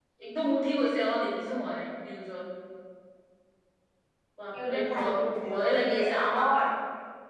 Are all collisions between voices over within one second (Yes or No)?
No